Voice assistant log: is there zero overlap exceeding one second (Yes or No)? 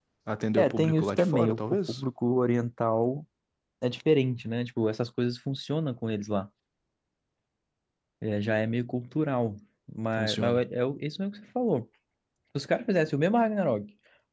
No